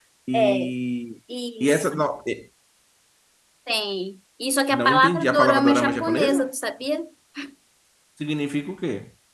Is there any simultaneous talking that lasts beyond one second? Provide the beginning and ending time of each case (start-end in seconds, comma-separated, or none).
4.7-6.5